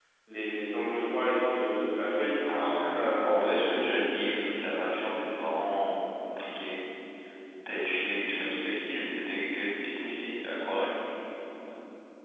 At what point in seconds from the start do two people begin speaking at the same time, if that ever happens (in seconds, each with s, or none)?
2.5 s